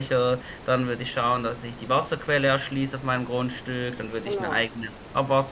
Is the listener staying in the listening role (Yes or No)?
Yes